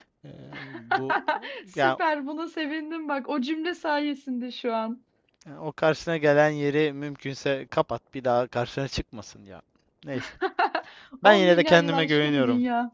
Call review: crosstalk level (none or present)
present